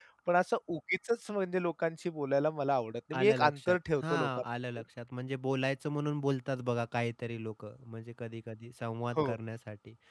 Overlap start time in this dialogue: 3.1 s

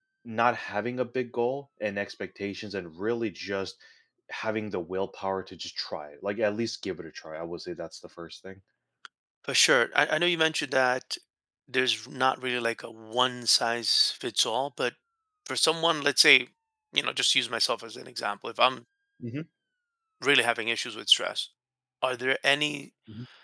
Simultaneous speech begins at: none

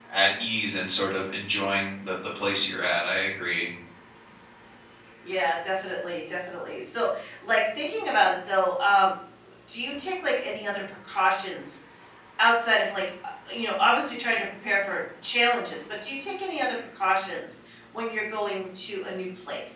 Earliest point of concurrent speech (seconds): none

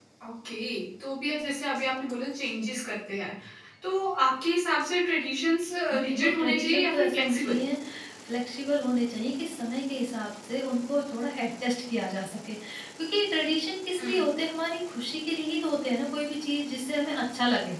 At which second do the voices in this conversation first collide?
5.9 s

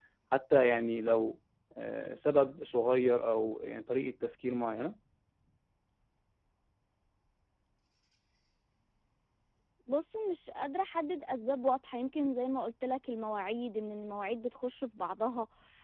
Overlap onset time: none

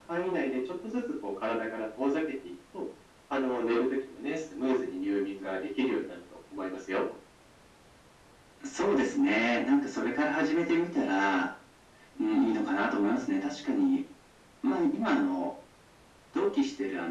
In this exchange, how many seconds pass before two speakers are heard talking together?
none

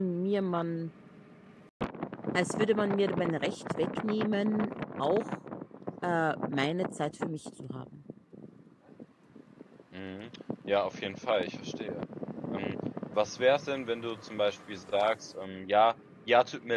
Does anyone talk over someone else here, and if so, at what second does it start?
none

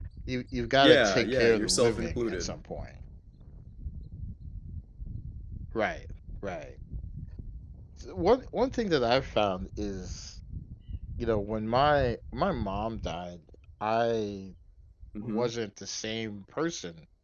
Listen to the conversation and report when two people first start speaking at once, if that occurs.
0.8 s

